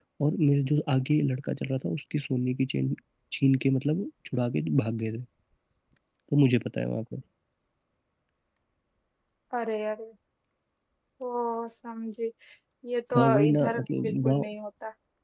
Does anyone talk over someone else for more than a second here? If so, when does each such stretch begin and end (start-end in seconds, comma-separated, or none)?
13.2-14.5